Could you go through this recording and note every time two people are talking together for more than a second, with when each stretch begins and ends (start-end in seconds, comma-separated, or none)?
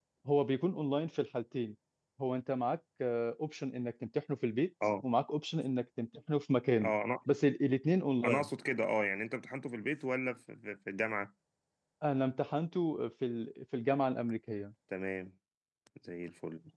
none